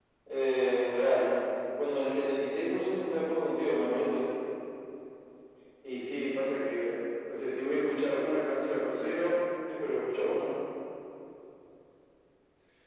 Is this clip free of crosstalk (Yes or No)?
Yes